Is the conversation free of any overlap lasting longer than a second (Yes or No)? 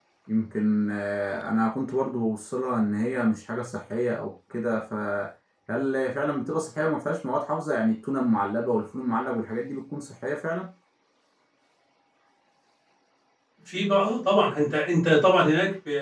Yes